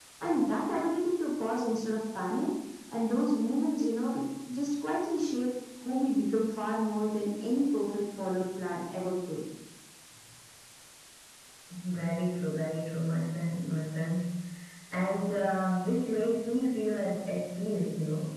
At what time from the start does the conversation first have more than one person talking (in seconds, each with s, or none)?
none